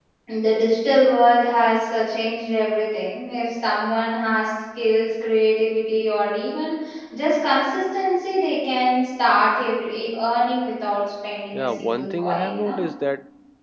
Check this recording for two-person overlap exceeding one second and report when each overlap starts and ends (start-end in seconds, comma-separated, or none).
11.5-12.8